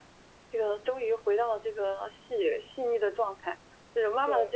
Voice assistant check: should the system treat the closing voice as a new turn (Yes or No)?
No